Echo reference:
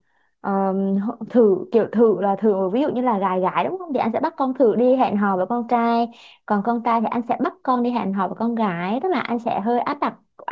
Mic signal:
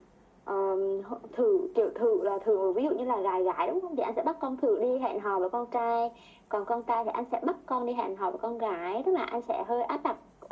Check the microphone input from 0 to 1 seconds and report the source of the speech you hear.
echo only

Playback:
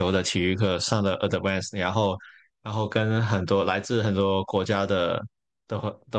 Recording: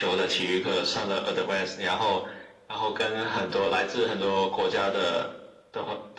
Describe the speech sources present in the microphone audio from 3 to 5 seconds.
echo only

